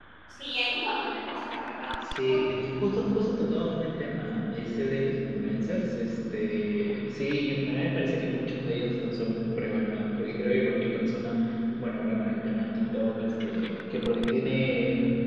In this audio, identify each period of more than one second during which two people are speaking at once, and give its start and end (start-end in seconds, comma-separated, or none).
none